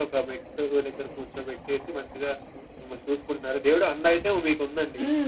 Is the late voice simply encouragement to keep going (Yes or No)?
No